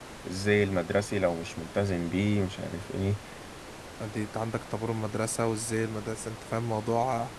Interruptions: none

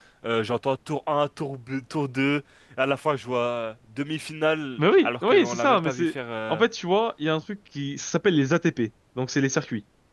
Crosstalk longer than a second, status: present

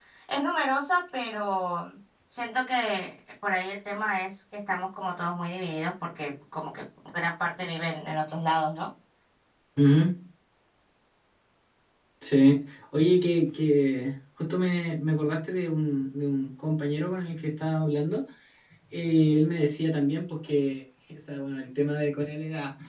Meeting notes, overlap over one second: none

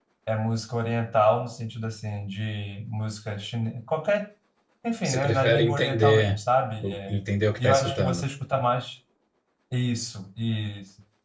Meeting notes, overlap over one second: present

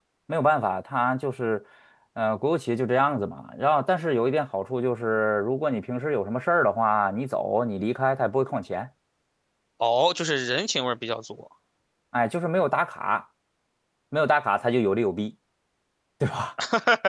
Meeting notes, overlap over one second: none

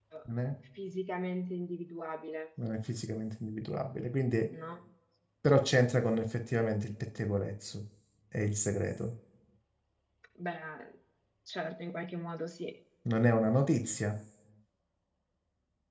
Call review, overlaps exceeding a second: none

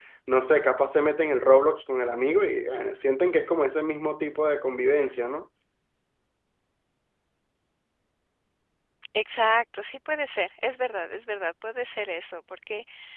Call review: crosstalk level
none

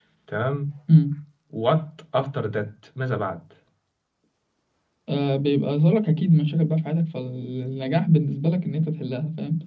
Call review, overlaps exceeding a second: none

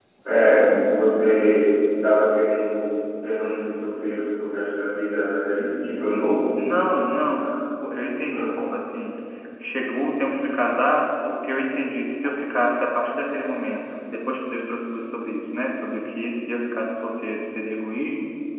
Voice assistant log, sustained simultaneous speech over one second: none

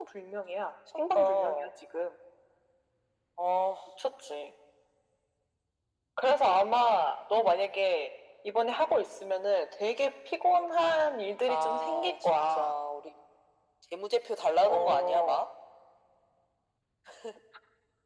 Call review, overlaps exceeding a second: present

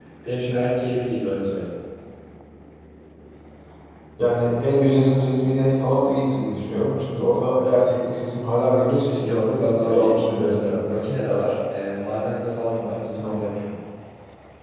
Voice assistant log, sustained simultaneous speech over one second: present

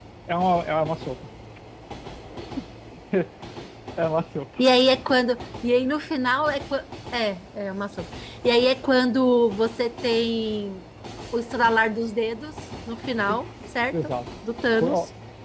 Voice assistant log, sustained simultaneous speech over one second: none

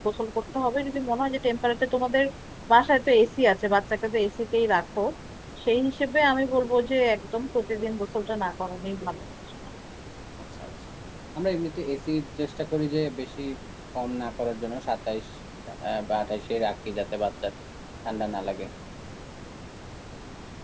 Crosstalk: none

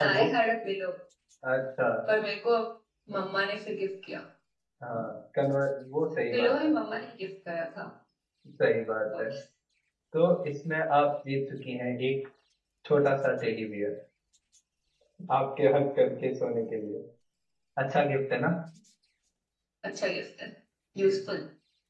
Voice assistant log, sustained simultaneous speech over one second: none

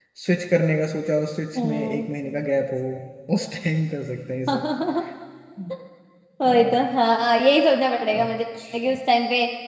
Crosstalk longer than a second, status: none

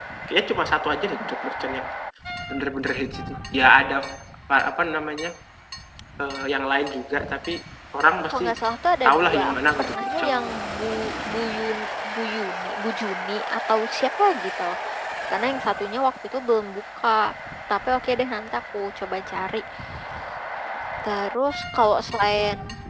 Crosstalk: present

